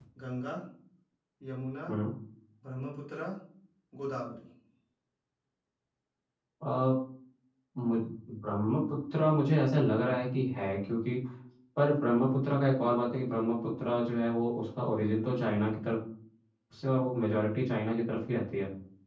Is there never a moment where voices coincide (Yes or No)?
Yes